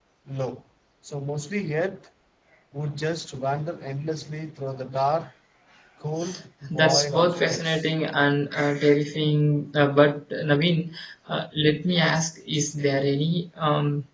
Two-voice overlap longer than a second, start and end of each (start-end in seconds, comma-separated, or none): 6.7-7.9